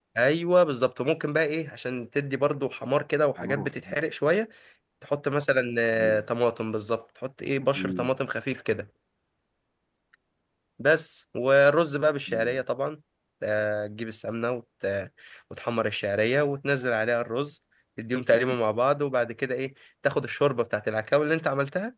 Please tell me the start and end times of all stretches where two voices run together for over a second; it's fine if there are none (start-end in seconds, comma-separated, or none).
none